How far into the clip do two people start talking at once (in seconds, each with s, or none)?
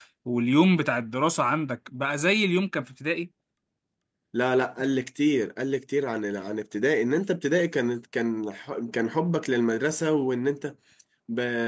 none